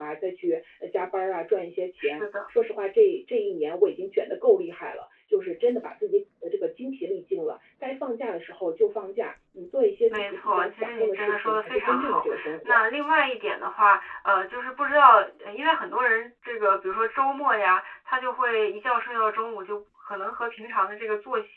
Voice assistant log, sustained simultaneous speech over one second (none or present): present